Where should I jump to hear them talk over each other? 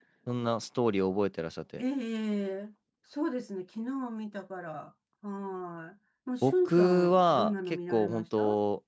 6.4 s

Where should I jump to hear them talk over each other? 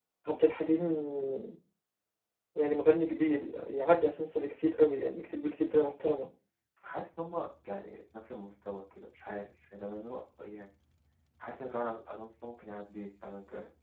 none

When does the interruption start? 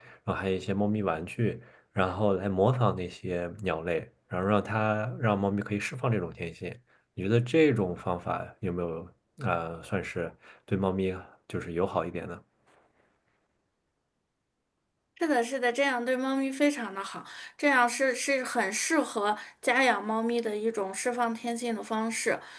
none

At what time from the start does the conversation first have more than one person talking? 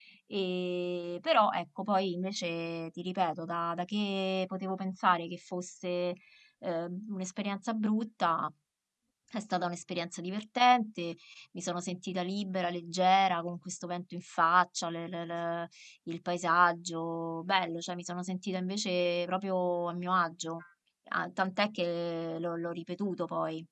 none

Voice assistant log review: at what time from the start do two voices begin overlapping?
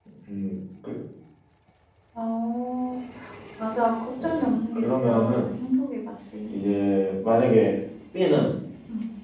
4.2 s

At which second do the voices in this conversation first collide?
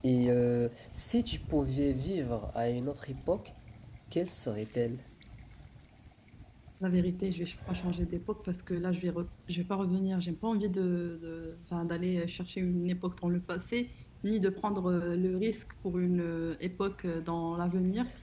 none

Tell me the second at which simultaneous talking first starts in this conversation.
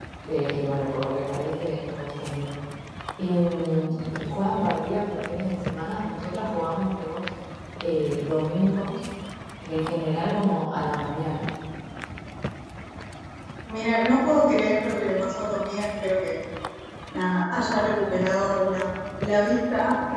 none

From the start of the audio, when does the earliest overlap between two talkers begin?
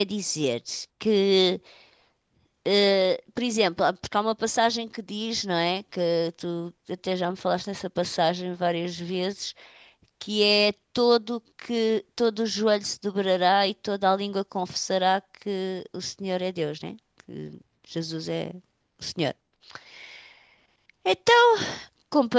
none

